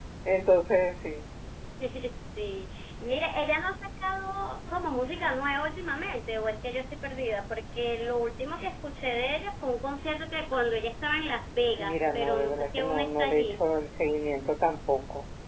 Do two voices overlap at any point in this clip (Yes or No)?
Yes